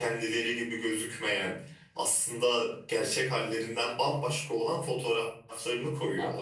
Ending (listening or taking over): taking over